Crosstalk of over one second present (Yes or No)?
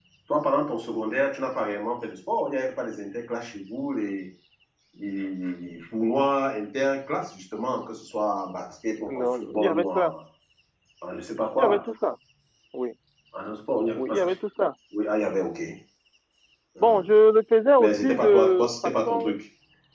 Yes